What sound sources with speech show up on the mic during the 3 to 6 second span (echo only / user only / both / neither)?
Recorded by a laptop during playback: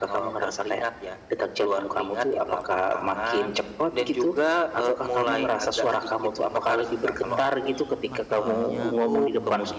echo only